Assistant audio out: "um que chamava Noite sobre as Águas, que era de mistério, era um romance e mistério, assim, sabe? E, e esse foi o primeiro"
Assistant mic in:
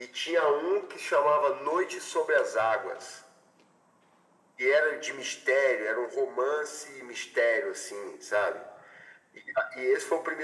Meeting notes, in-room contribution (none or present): none